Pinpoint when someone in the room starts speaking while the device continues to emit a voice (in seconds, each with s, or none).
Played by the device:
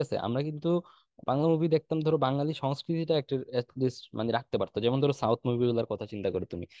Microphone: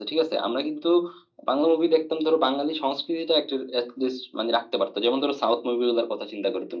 none